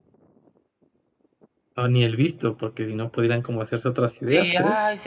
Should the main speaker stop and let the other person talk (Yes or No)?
Yes